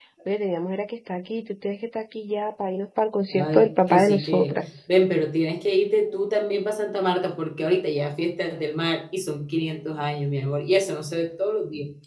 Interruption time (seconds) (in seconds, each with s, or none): 3.3 s